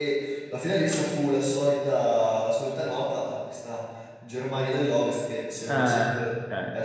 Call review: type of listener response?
listening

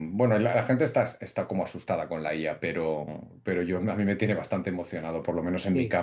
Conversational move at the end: listening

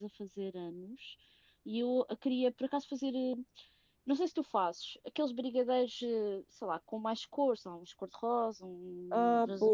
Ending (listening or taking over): taking over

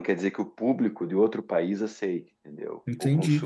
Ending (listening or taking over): taking over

